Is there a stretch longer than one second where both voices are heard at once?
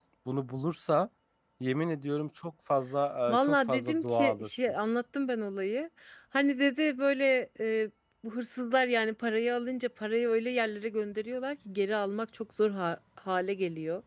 Yes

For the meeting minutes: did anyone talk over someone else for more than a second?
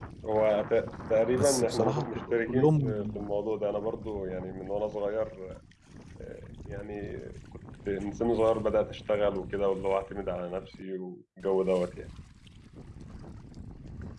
Yes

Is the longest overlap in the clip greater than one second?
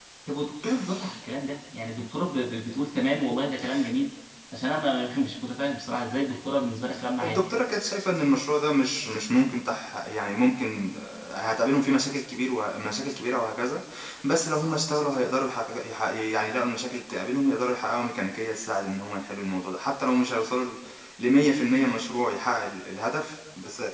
No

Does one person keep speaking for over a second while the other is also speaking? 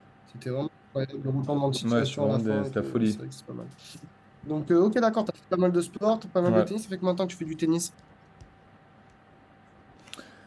Yes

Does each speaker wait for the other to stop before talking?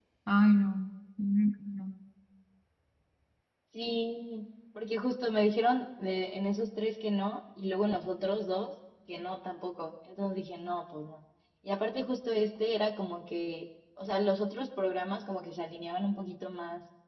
Yes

